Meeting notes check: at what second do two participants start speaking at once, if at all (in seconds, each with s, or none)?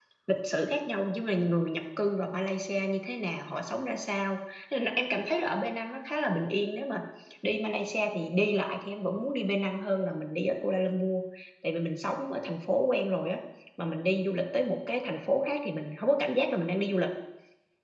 none